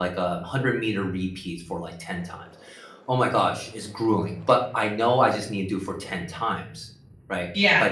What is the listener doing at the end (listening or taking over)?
listening